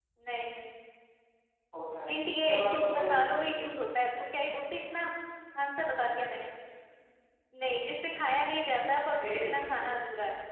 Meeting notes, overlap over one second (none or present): present